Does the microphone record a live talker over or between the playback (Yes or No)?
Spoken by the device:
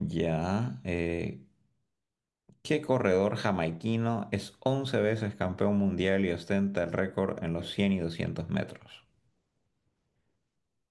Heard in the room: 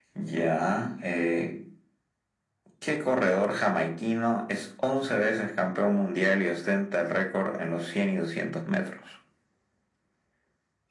No